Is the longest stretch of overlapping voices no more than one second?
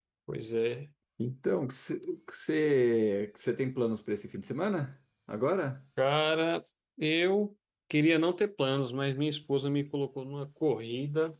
Yes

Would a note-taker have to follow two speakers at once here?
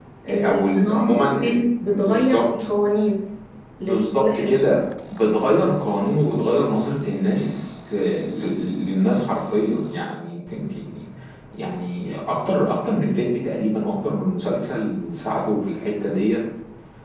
Yes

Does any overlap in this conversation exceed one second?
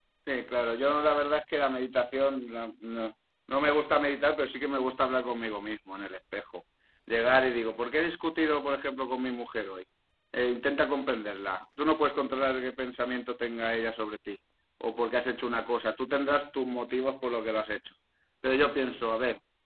No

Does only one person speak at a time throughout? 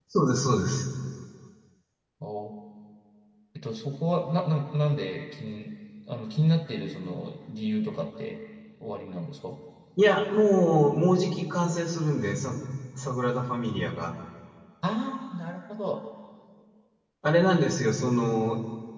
Yes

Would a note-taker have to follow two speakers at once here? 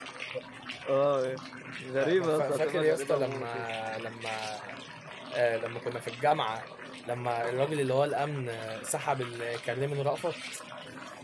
Yes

